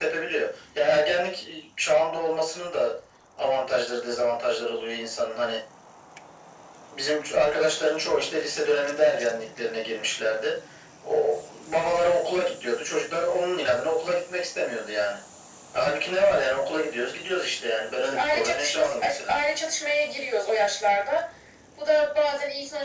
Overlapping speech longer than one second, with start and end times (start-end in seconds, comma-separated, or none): 18.0-19.4